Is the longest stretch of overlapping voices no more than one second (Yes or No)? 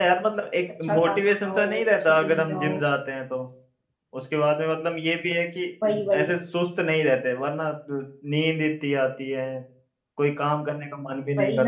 No